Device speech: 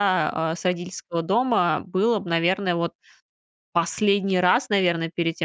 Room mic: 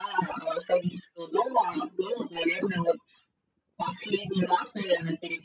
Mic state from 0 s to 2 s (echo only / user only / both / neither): echo only